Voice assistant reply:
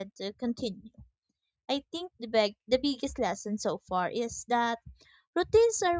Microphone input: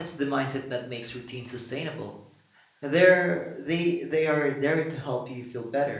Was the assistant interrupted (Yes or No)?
Yes